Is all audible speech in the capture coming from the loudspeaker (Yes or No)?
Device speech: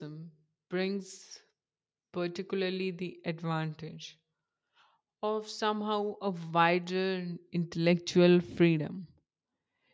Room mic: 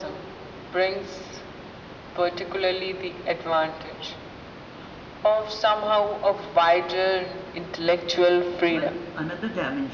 No